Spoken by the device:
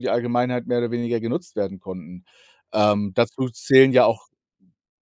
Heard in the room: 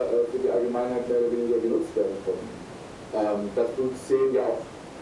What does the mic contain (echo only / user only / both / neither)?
echo only